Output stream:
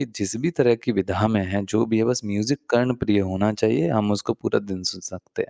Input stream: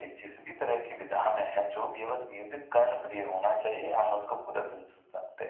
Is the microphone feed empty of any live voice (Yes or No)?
Yes